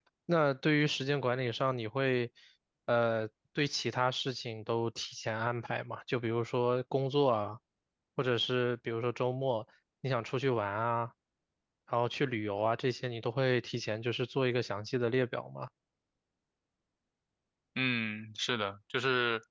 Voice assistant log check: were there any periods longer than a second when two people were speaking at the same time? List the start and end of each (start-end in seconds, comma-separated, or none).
none